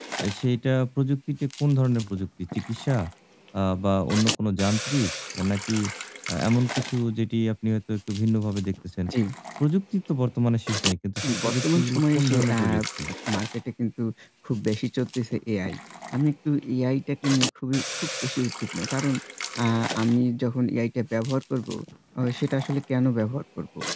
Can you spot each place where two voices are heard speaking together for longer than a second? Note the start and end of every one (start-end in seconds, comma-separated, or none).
11.2-12.6